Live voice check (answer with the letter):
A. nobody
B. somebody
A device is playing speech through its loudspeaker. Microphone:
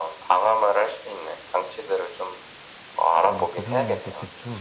B